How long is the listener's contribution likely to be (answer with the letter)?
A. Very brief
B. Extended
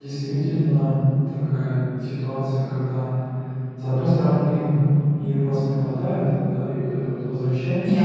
A